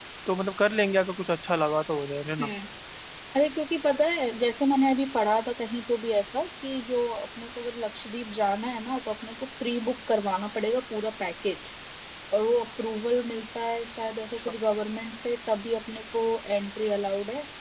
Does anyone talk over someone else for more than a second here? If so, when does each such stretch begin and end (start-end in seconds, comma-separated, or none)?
none